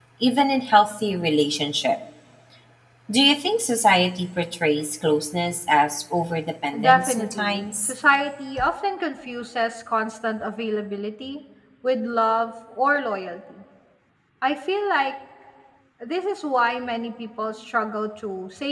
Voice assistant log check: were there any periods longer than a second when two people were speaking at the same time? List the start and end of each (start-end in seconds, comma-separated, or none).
6.7-7.9